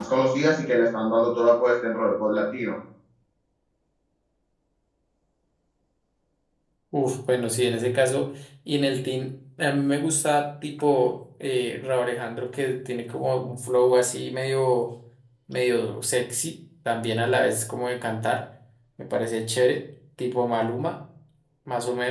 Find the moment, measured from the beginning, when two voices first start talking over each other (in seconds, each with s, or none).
none